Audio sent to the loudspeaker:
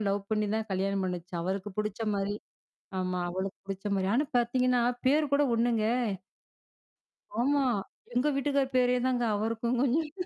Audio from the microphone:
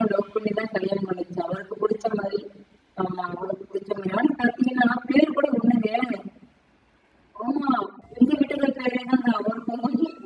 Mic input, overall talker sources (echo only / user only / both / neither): echo only